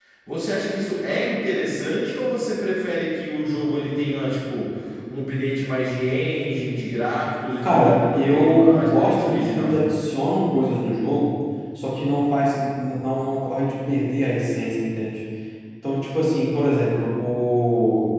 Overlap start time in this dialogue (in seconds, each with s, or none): 7.6 s